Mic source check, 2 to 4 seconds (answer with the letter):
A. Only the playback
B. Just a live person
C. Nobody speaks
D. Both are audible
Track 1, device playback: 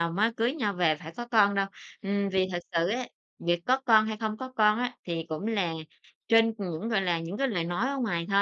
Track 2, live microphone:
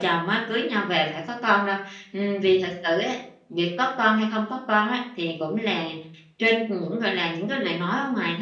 A